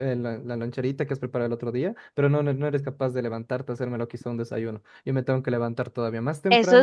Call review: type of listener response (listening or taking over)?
taking over